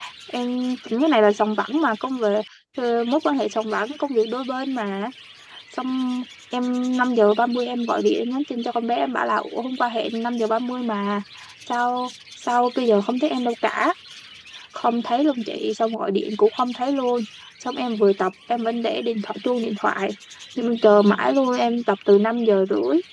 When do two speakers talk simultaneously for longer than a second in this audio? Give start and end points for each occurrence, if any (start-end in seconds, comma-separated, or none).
none